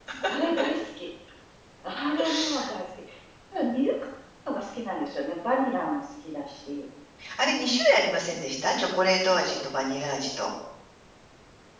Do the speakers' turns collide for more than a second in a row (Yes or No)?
No